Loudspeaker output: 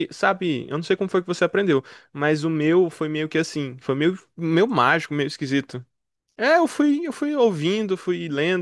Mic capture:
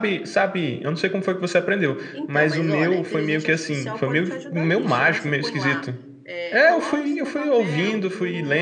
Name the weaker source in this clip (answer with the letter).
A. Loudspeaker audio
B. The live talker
B